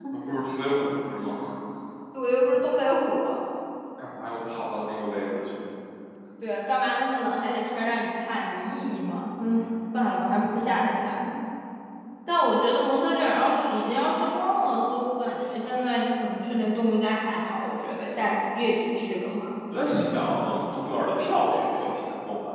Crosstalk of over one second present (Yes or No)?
No